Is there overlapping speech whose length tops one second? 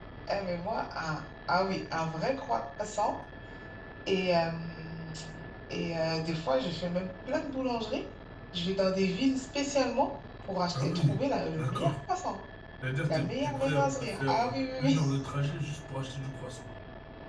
Yes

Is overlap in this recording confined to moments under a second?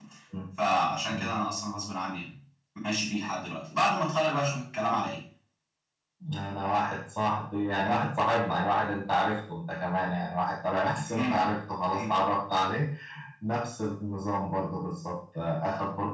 Yes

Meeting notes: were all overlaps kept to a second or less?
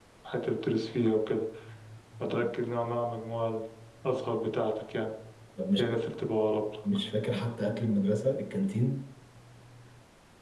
Yes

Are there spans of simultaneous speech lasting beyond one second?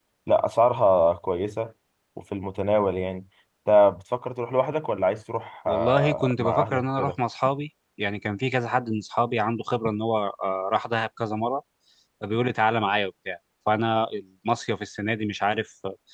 Yes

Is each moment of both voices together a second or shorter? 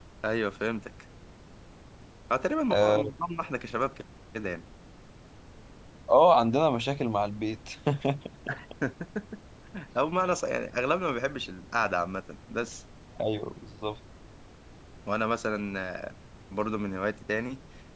Yes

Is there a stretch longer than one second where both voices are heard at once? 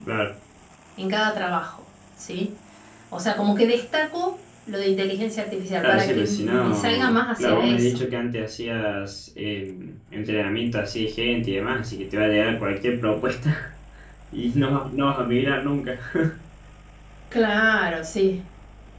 Yes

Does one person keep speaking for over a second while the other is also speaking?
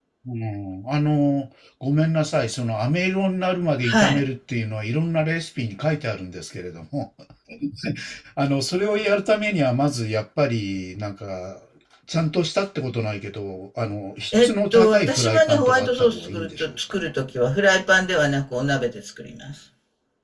Yes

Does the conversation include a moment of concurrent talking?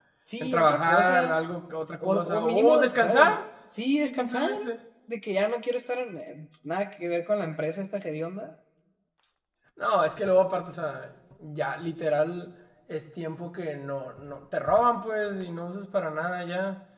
Yes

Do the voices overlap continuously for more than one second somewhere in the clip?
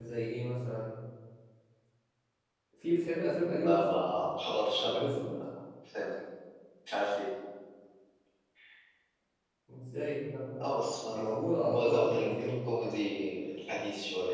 Yes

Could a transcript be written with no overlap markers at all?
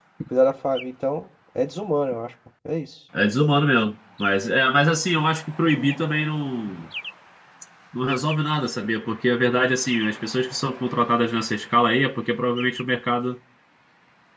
Yes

